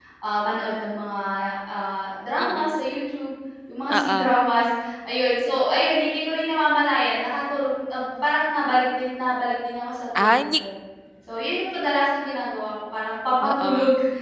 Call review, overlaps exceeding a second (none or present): none